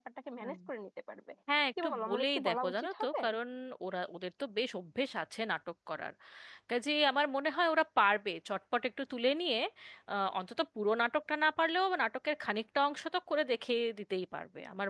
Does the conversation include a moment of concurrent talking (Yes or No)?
Yes